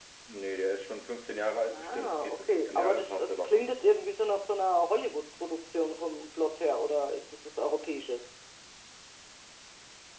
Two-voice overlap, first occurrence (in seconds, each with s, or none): 1.7 s